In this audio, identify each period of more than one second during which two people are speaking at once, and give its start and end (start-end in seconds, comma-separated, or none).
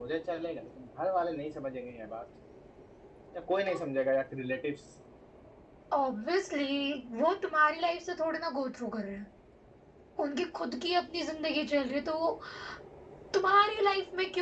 none